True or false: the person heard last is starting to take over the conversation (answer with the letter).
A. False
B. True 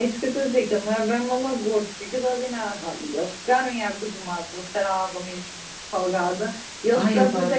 A